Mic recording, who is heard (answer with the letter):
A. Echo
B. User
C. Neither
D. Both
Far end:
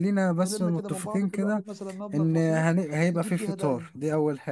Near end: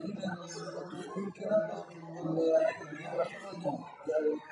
D